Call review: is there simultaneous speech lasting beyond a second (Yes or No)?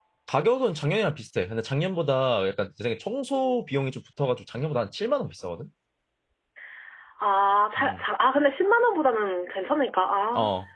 No